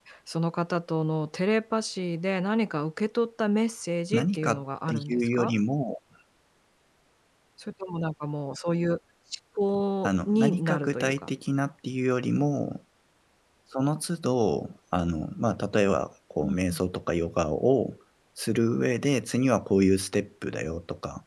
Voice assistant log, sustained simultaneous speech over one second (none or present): present